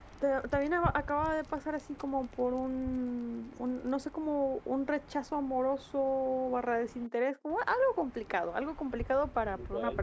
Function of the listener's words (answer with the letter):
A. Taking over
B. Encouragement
B